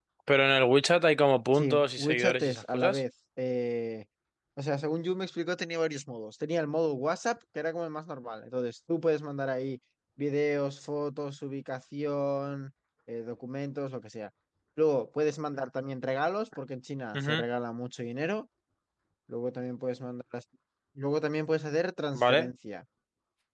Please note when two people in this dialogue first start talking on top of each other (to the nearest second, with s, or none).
1 s